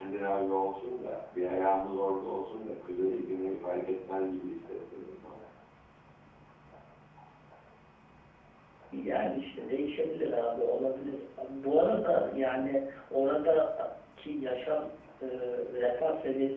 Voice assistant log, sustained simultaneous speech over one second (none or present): none